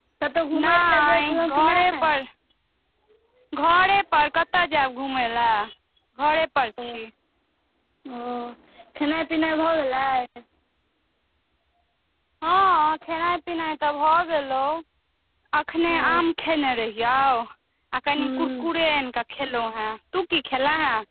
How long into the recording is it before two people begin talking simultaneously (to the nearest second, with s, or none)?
1 s